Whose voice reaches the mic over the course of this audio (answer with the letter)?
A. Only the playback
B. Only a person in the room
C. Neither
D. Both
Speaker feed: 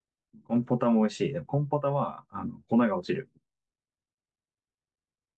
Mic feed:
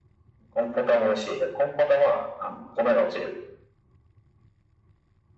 A